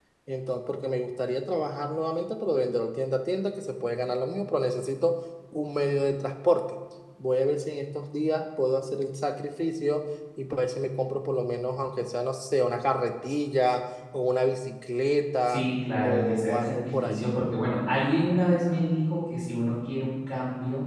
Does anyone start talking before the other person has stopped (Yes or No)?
Yes